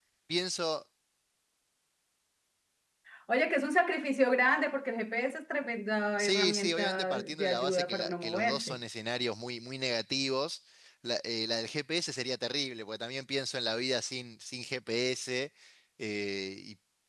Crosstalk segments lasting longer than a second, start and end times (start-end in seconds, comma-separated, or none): 6.2-8.8